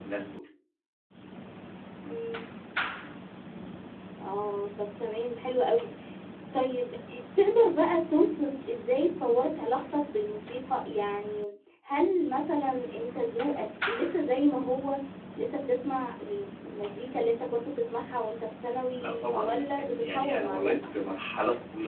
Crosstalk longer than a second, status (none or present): present